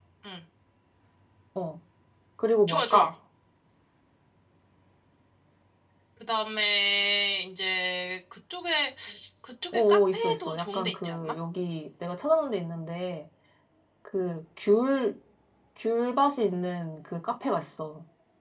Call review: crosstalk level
present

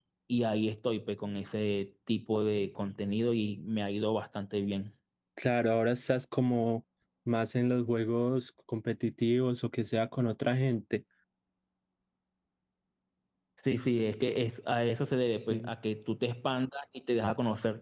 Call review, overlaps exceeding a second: none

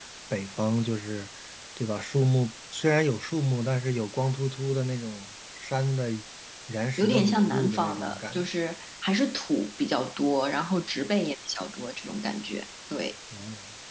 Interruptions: present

